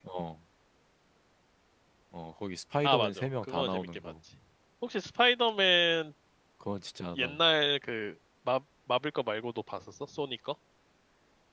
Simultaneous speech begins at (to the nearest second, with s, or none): 3 s